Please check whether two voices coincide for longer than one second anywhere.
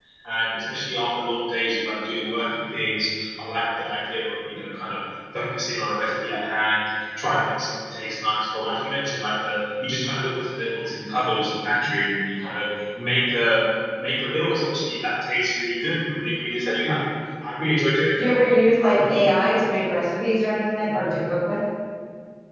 No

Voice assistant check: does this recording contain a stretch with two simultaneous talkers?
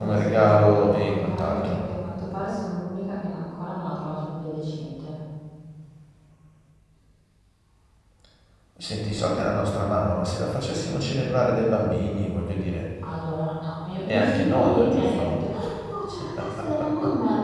Yes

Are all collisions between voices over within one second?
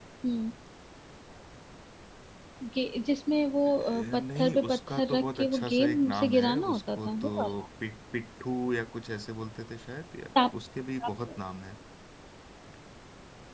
No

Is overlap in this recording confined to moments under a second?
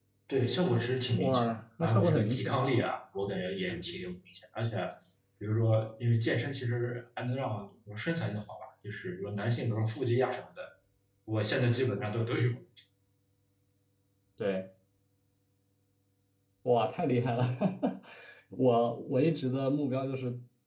No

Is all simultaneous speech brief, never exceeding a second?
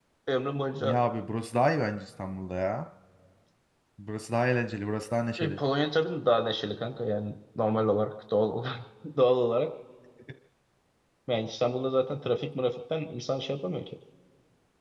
Yes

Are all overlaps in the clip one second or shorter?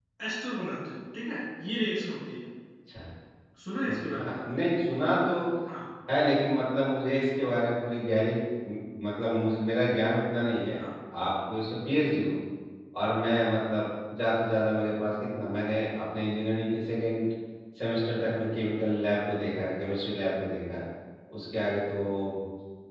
Yes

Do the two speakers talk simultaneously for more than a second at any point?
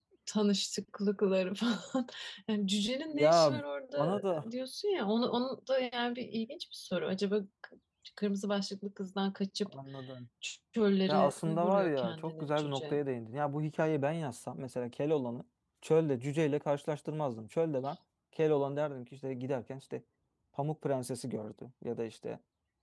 Yes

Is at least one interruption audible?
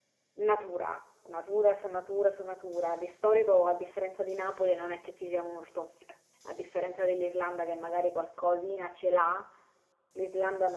No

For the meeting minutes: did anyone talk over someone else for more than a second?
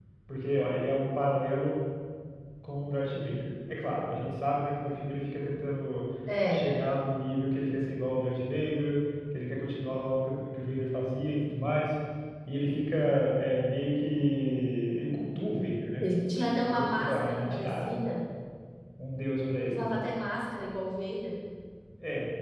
Yes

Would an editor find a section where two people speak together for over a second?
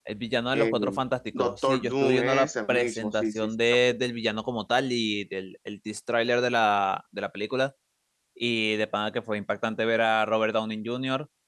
Yes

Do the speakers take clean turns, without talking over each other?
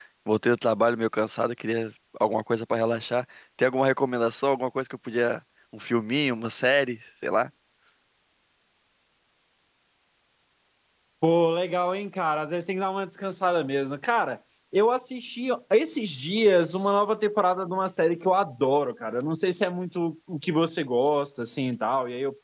Yes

